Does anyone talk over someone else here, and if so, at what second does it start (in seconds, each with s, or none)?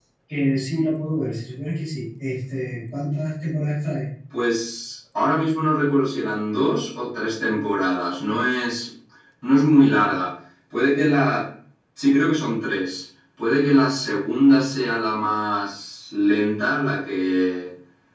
none